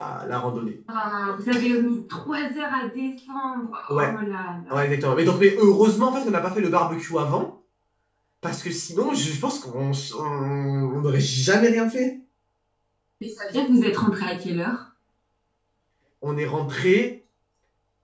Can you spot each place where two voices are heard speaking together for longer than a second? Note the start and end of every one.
none

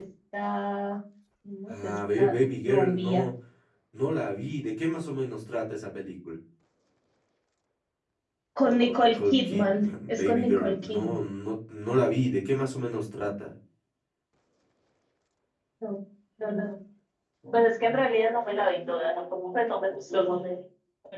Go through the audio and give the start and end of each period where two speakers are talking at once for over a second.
1.7-3.2, 8.9-11.1

